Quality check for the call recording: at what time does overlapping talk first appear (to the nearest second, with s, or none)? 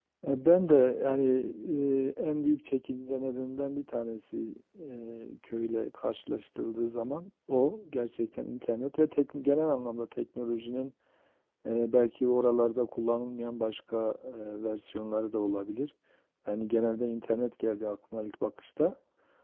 none